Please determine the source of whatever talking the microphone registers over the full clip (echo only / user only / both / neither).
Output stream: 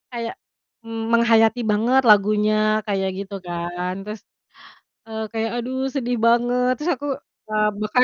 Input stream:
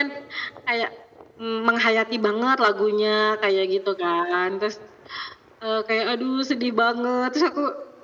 echo only